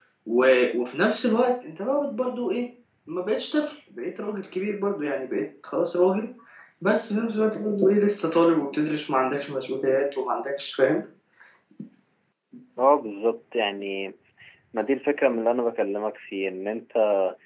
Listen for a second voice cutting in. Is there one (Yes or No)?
No